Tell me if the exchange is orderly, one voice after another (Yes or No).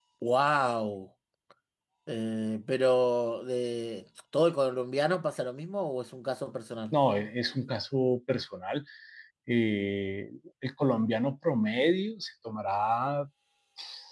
Yes